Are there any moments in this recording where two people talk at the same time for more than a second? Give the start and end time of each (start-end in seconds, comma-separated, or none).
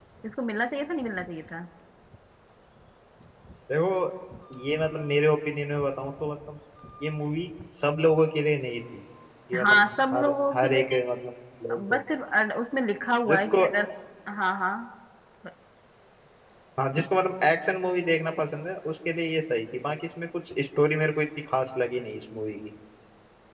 9.6-11.0